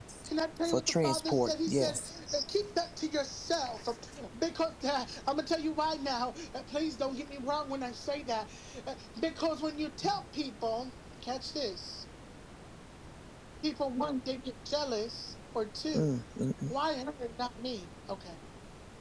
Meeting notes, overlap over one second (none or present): present